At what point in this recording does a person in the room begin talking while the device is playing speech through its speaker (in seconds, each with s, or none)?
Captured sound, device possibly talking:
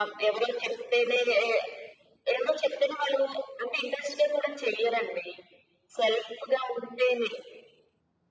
none